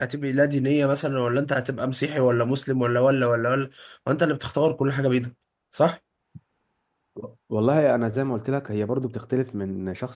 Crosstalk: none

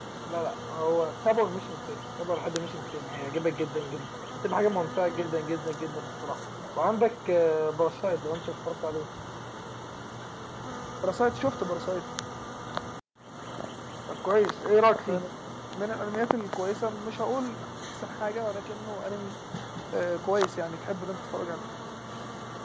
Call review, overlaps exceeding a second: none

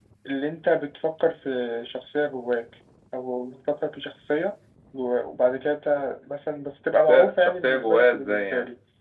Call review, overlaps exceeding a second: present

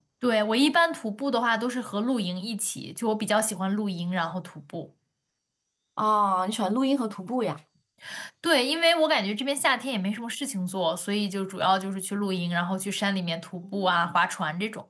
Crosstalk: none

